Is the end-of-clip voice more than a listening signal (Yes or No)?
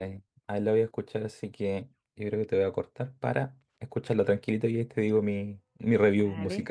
Yes